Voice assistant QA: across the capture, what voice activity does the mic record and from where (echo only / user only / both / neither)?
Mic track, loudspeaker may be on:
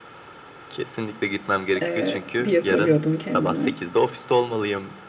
both